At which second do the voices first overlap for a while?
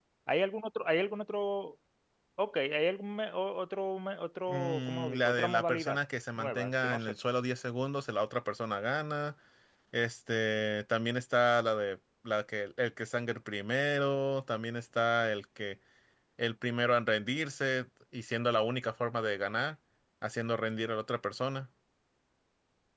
4.5 s

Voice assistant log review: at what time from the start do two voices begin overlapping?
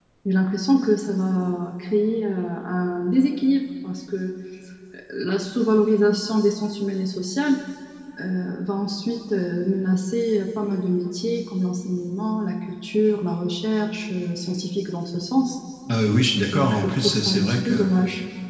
16.5 s

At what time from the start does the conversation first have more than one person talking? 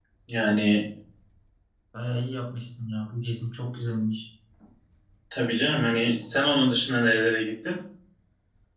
none

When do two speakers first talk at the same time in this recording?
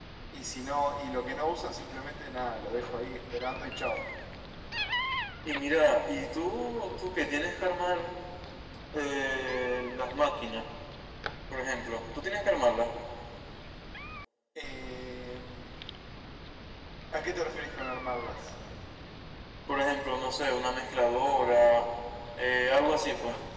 none

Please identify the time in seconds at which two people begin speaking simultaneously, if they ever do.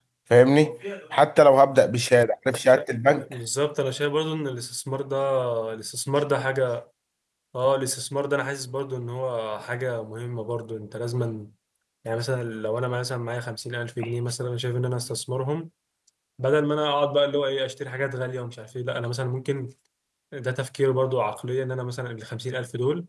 none

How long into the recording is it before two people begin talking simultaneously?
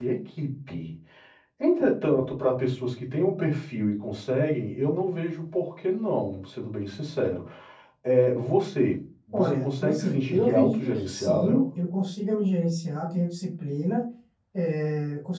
9.3 s

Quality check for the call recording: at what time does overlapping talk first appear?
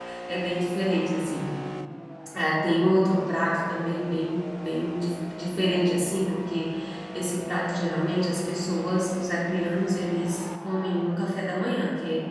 none

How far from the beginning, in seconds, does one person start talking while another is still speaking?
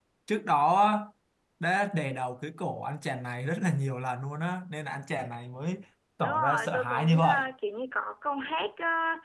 6.2 s

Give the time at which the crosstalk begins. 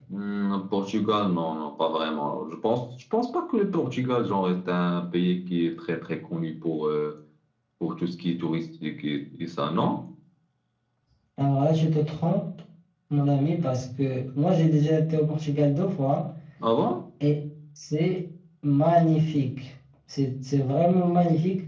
none

